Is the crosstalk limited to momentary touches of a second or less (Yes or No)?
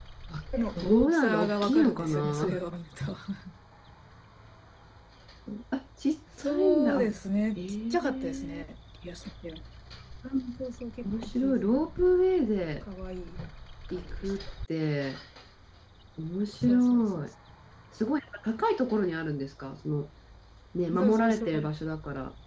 No